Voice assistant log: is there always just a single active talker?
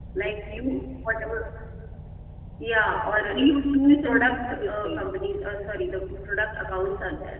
No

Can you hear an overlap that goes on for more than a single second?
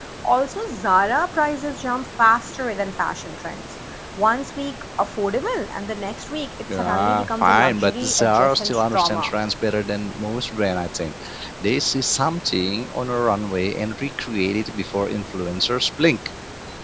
Yes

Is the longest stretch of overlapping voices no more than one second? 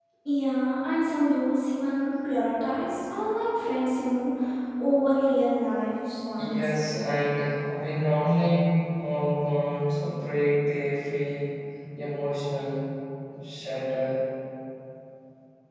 Yes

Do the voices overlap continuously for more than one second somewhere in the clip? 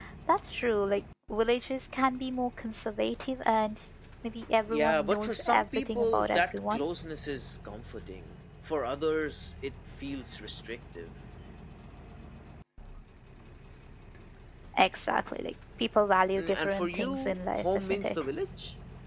Yes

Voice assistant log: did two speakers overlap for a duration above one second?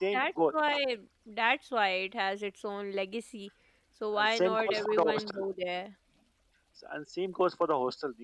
Yes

